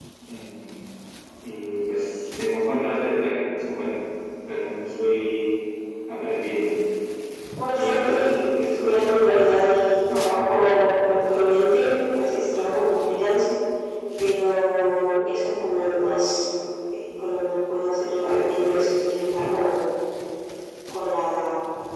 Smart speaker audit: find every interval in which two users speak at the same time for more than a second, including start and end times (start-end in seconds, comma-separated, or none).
7.7-9.0